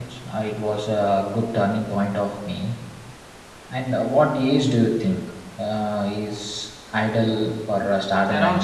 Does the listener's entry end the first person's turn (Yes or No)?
Yes